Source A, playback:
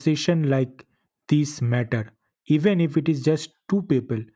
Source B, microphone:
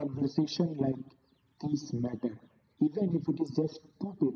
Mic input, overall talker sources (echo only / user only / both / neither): echo only